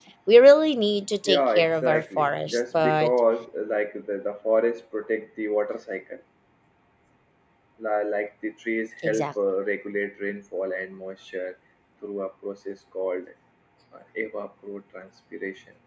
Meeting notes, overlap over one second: present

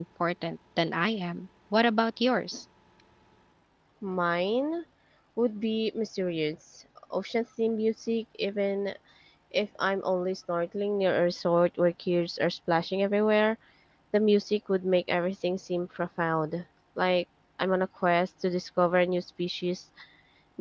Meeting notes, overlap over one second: none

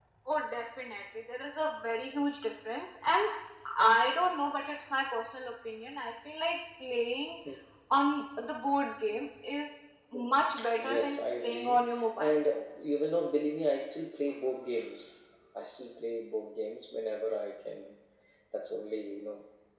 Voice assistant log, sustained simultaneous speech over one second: present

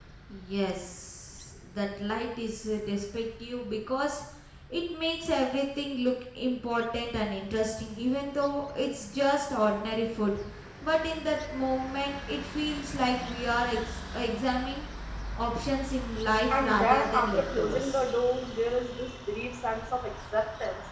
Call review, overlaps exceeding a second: present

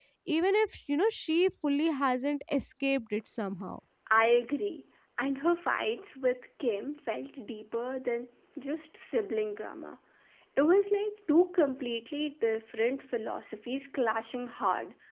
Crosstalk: none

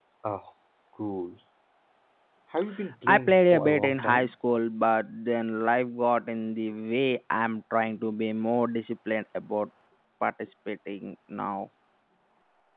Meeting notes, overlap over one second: present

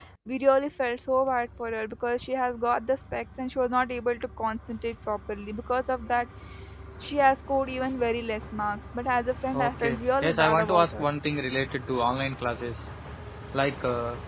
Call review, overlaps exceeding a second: present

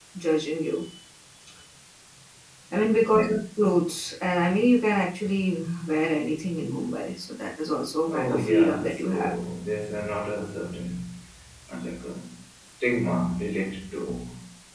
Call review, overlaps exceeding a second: present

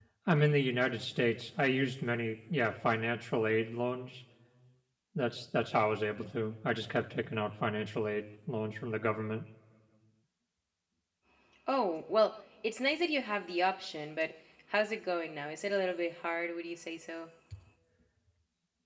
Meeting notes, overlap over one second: none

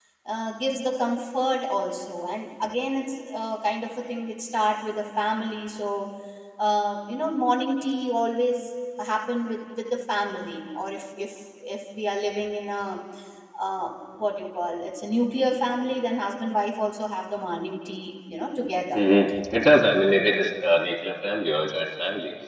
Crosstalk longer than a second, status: none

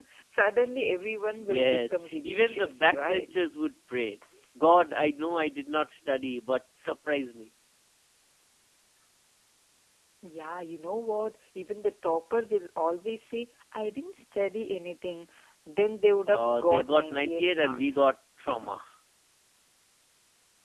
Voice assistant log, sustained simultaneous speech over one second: present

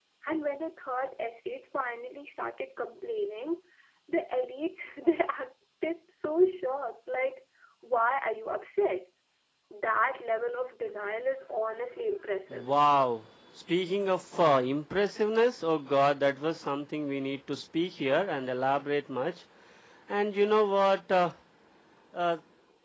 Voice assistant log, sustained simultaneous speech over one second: none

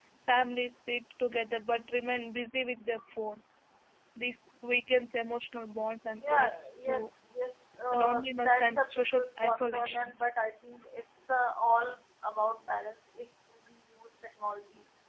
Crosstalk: present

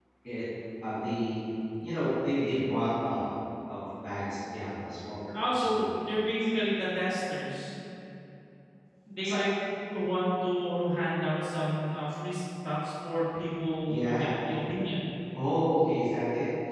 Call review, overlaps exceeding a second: none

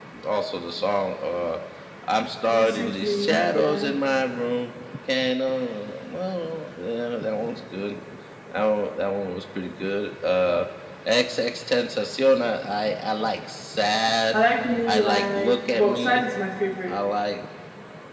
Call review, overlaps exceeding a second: present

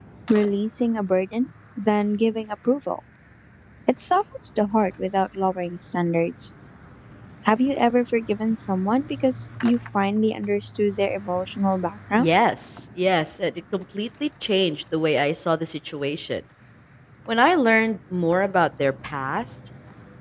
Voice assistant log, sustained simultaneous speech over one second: none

